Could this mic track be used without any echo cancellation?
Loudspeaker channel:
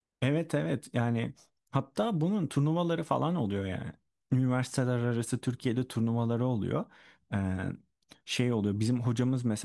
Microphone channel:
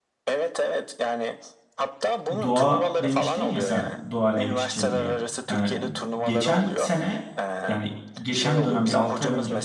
No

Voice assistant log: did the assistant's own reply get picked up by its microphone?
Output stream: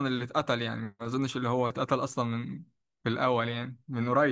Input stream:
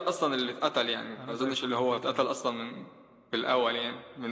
Yes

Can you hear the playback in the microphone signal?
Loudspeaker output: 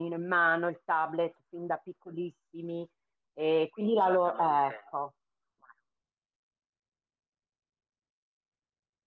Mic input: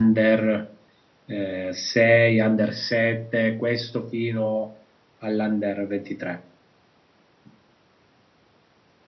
No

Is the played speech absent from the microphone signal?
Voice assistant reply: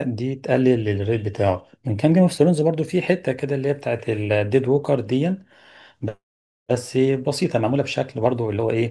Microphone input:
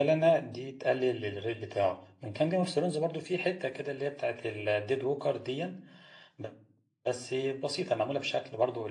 No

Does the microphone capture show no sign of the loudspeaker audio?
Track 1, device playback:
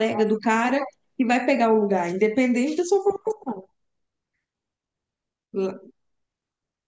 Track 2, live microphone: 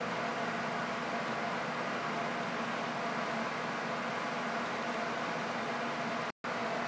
Yes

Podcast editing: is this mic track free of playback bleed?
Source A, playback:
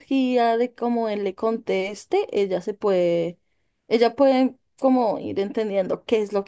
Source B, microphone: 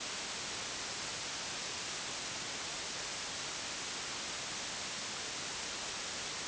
Yes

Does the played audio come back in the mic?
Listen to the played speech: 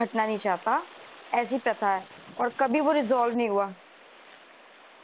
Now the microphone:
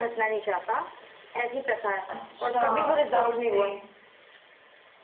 Yes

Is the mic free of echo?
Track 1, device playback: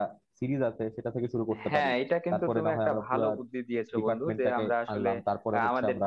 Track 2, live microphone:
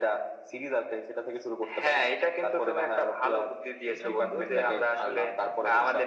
No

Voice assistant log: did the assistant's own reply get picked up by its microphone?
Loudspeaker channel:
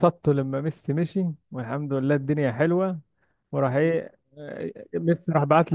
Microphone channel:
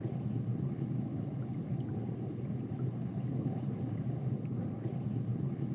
No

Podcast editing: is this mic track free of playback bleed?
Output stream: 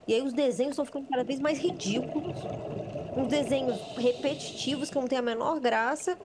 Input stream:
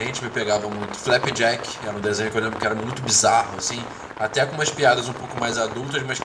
Yes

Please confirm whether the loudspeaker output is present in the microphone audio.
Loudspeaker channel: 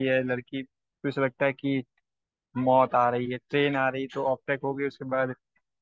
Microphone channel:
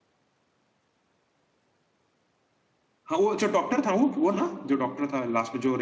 No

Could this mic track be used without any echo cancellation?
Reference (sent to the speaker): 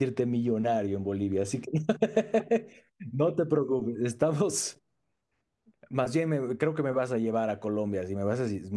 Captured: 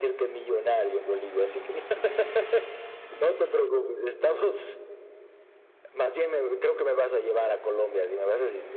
No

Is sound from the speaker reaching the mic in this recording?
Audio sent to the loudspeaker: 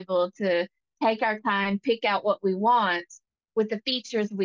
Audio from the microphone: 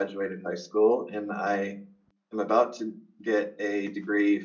No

